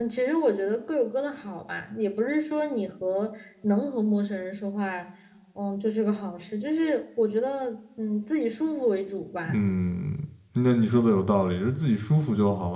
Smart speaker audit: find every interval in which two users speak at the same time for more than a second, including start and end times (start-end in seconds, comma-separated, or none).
none